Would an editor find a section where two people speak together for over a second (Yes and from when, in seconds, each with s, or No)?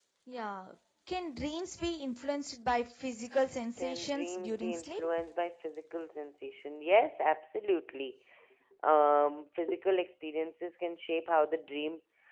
Yes, from 3.8 s